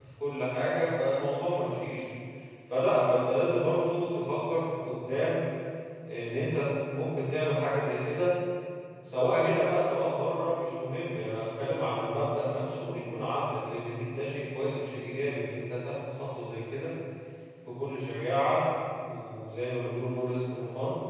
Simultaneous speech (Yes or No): No